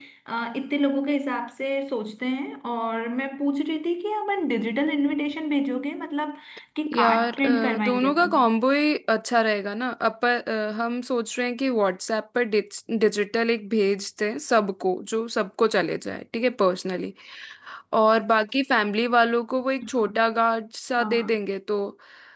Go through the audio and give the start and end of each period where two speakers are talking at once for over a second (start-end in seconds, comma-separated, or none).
6.9-8.3